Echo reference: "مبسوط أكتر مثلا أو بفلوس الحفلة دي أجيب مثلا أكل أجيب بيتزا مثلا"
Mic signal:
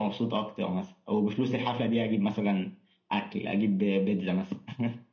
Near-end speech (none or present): none